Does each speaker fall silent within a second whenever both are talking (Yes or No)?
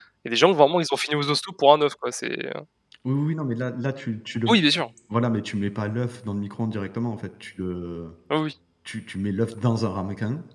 Yes